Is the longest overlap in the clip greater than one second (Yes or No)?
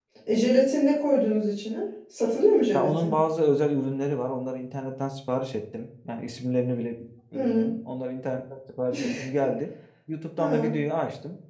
No